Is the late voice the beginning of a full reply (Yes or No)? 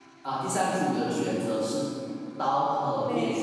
No